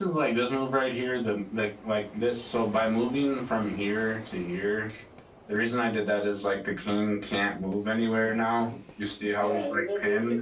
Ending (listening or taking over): taking over